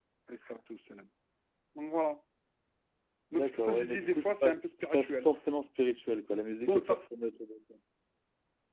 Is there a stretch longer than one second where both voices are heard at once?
Yes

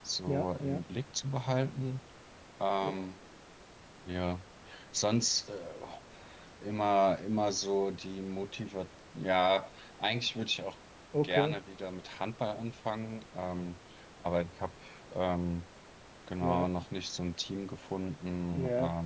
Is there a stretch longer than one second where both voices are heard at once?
No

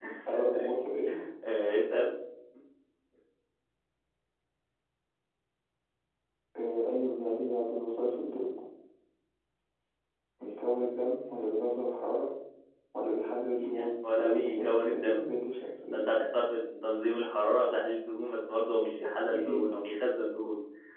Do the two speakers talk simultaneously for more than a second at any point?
Yes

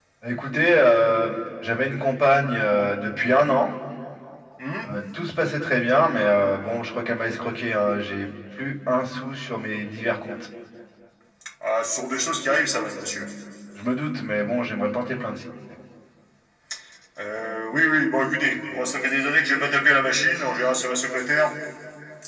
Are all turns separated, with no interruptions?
Yes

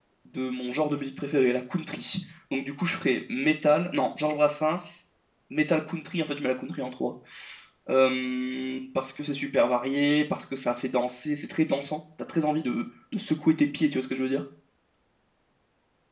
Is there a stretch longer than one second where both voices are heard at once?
No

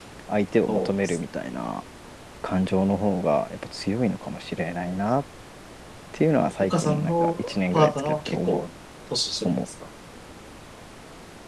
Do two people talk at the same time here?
Yes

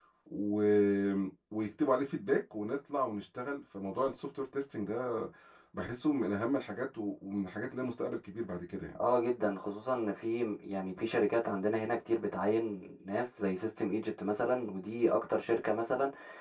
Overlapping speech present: No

